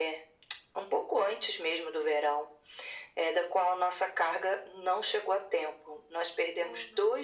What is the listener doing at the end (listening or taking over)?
listening